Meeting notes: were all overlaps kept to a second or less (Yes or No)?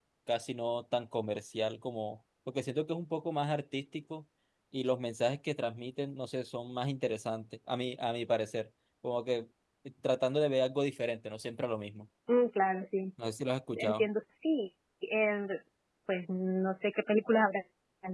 Yes